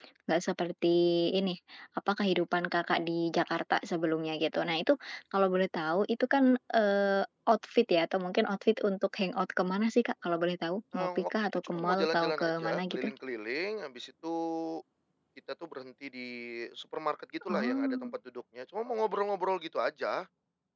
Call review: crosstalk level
present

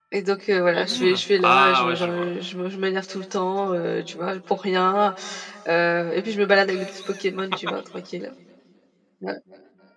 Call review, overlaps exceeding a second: present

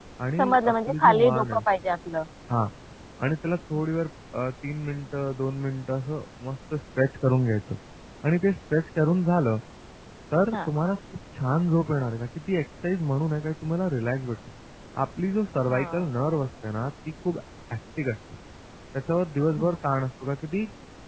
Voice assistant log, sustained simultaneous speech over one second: present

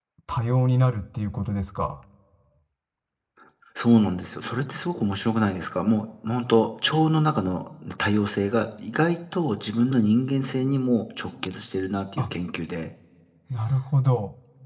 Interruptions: none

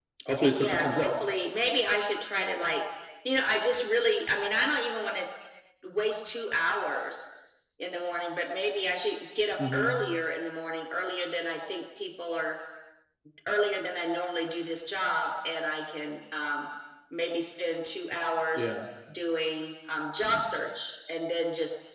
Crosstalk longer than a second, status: none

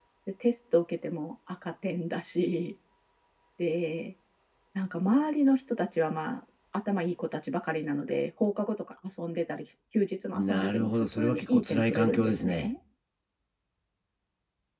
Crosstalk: present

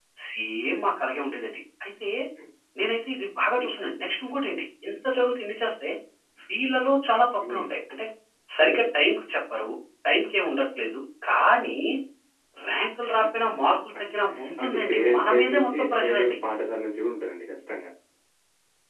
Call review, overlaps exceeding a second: present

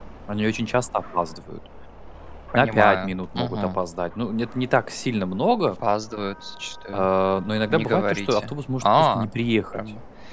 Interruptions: present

